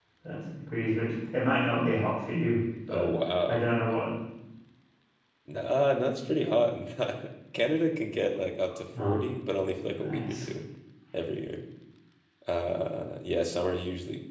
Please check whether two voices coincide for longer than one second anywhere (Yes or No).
No